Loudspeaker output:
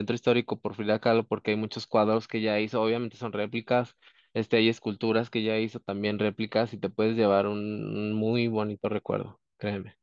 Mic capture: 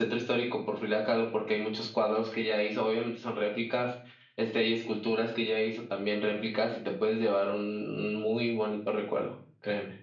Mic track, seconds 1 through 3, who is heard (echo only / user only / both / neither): echo only